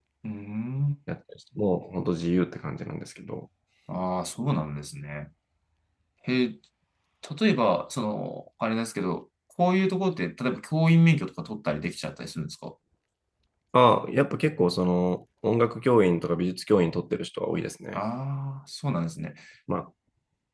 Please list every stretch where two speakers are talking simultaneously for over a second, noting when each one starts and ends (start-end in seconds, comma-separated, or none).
none